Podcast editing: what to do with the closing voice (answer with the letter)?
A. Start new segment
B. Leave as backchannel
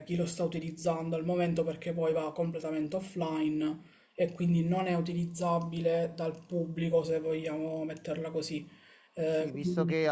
A